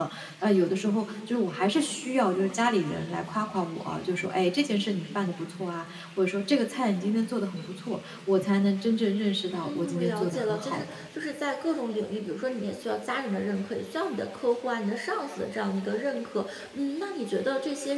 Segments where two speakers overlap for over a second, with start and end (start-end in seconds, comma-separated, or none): 9.6-10.9